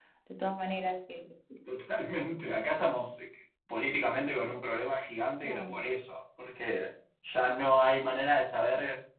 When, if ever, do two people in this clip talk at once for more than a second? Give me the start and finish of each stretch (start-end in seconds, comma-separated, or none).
none